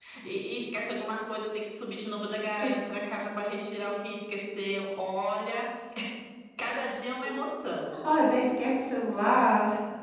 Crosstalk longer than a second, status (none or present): none